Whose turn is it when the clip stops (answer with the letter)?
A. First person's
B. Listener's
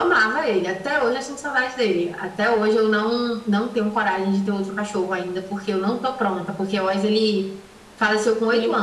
A